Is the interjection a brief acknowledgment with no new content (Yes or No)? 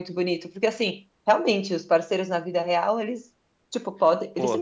Yes